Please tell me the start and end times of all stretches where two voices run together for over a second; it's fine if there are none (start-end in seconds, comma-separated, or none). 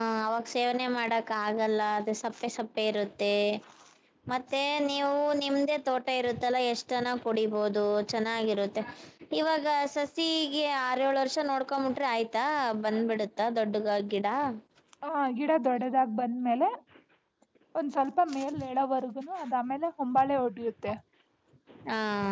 none